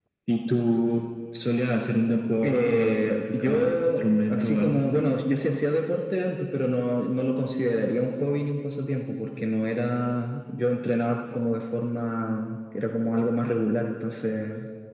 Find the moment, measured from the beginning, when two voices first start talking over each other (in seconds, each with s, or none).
2.4 s